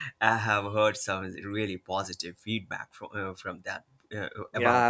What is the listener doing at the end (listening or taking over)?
taking over